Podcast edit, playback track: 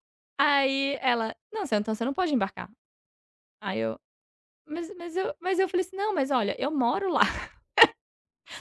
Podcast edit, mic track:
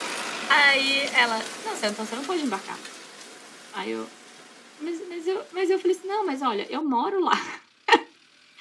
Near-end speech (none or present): none